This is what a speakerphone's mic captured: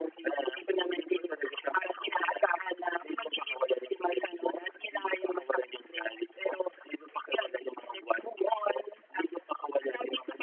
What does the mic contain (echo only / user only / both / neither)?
echo only